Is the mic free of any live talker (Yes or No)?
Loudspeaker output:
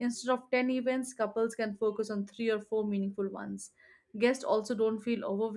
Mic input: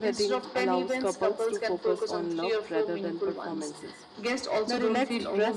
No